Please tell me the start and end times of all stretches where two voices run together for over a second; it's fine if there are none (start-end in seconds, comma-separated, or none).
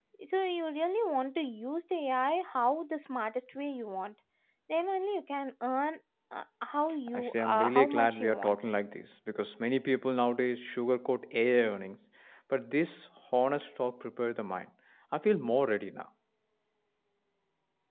7.1-8.6